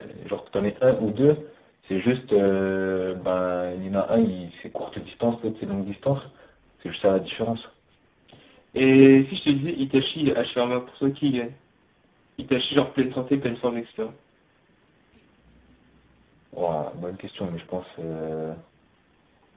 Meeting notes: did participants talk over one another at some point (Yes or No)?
No